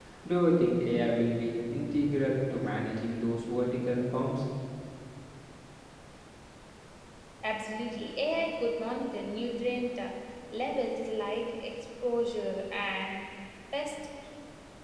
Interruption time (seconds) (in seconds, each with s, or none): none